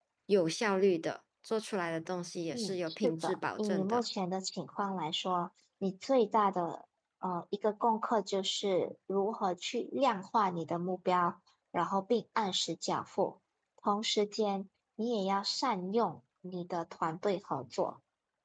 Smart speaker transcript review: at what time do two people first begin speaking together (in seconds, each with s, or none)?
2.5 s